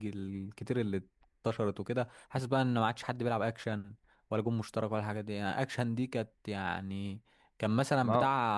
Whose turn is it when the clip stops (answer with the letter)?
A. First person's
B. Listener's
A